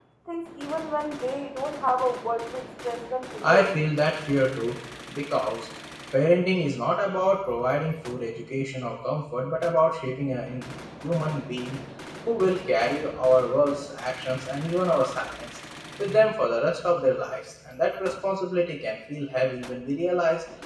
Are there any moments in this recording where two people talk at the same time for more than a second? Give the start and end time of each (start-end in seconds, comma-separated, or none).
none